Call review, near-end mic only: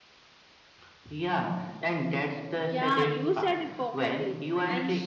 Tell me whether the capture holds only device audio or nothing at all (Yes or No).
No